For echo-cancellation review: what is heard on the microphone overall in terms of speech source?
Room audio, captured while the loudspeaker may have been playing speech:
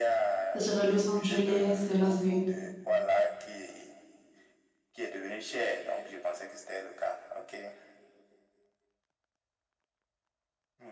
both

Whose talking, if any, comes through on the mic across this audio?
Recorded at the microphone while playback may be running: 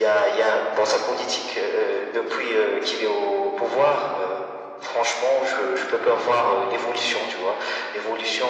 echo only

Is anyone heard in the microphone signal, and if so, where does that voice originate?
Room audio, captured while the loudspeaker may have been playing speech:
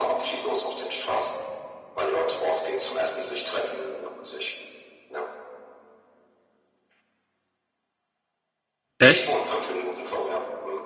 both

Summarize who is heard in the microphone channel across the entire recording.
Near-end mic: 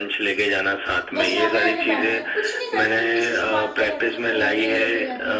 both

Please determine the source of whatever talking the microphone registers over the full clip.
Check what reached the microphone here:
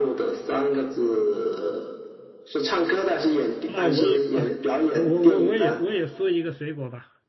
both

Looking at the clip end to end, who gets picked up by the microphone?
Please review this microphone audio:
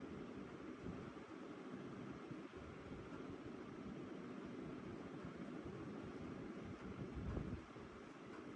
neither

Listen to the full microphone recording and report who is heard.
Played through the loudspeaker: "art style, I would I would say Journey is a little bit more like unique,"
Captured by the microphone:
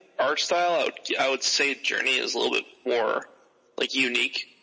echo only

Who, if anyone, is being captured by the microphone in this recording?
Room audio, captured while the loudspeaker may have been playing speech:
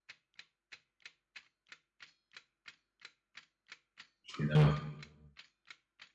user only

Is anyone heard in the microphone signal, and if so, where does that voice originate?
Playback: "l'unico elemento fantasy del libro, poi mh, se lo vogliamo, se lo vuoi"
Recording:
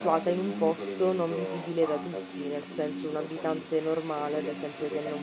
both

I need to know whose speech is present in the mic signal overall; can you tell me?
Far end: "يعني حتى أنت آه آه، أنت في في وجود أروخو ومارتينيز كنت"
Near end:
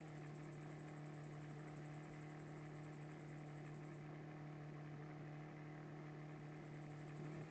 neither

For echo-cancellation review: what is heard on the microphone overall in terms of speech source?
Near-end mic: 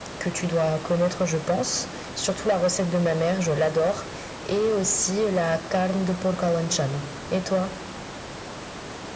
echo only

